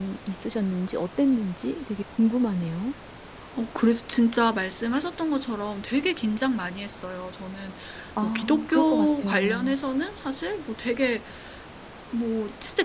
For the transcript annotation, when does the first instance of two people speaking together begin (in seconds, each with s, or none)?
8.2 s